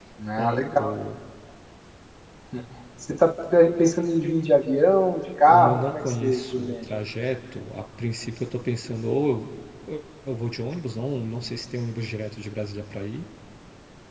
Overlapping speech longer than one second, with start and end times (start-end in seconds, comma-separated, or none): 5.5-6.9